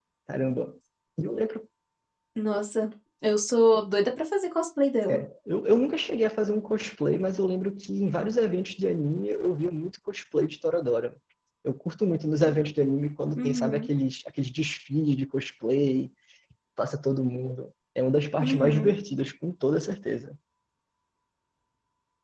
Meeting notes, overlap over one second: none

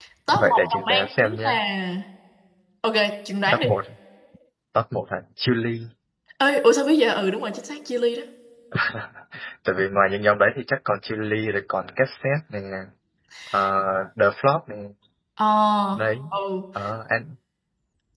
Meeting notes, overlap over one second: present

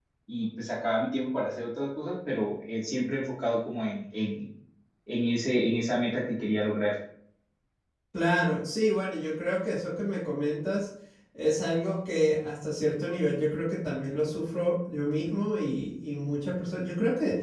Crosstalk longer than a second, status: none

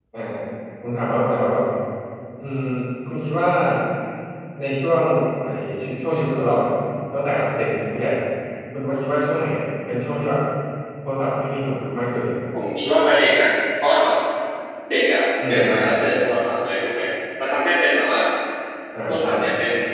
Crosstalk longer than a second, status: none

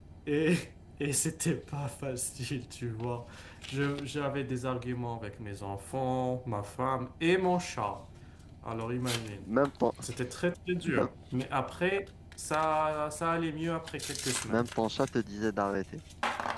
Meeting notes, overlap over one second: none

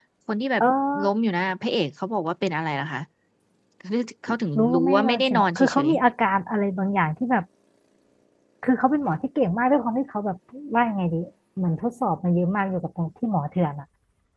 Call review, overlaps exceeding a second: present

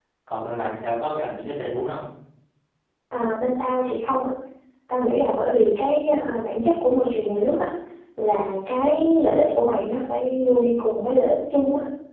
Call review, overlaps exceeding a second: none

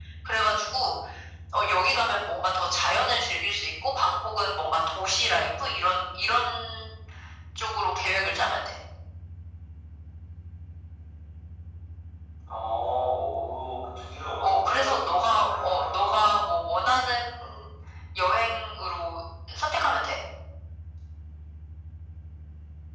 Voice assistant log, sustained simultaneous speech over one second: present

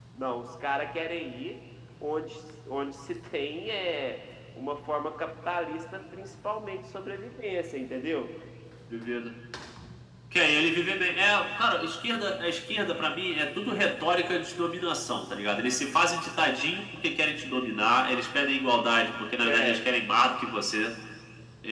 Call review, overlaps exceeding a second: none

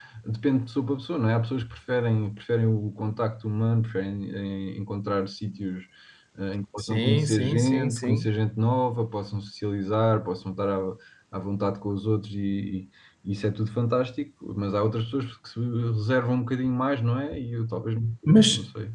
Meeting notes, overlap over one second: present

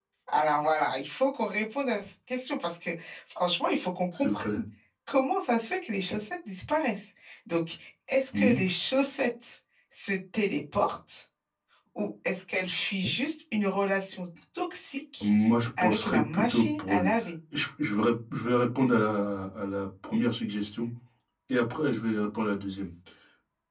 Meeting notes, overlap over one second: present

